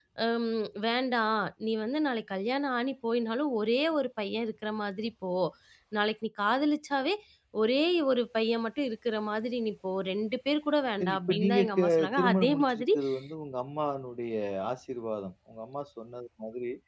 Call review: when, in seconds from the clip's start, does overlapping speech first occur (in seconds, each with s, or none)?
11.0 s